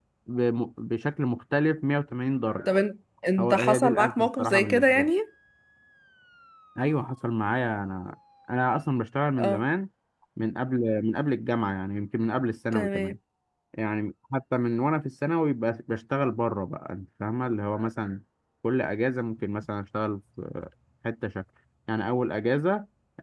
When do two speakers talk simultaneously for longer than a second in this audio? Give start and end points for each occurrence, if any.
3.4-5.1

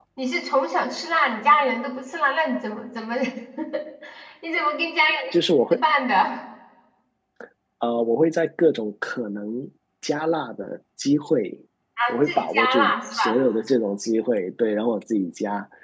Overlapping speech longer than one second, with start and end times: 12.1-13.4

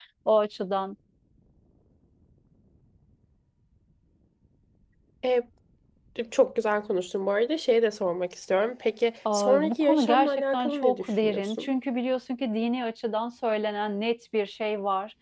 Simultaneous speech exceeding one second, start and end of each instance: 9.3-11.7

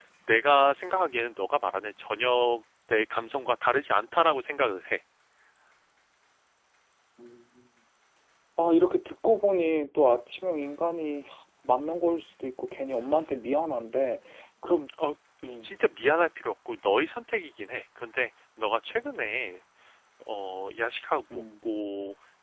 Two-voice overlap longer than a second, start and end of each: none

